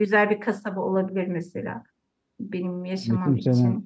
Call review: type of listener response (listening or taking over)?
taking over